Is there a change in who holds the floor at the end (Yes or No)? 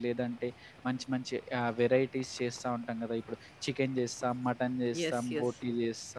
No